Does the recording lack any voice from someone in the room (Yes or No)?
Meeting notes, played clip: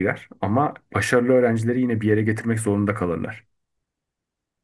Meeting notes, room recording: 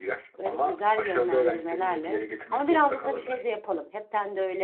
No